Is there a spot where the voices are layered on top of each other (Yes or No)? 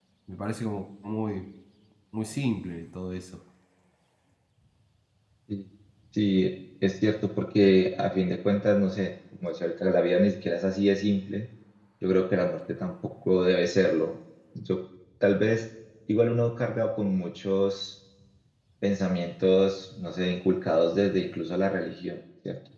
No